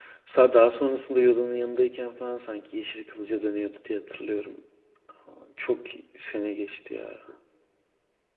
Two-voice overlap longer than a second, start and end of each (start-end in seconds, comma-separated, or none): none